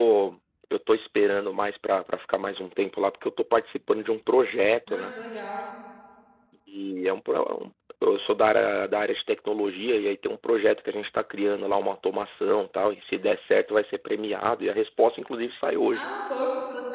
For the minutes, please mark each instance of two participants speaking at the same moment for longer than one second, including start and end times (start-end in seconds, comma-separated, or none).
none